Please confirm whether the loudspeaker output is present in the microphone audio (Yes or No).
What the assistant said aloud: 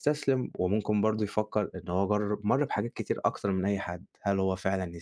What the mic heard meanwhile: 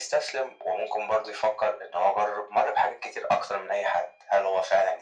Yes